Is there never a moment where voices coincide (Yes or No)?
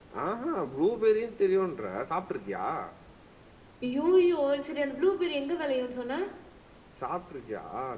Yes